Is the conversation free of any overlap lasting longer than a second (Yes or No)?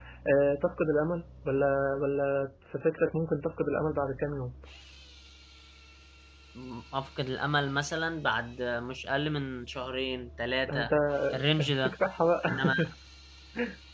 Yes